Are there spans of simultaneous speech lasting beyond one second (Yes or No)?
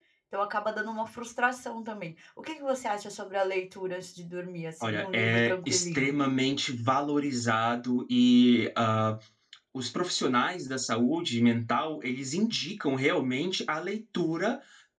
Yes